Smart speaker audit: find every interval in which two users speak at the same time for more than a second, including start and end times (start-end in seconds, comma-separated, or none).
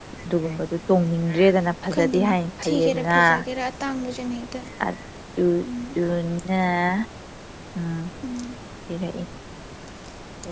1.9-3.2